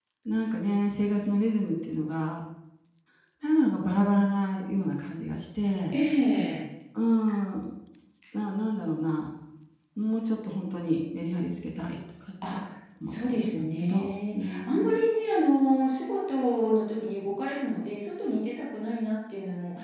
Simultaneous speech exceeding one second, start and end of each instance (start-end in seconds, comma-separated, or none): 13.1-15.0